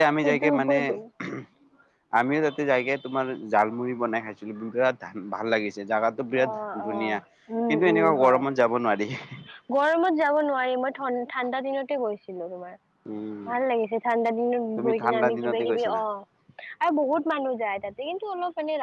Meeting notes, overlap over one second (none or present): present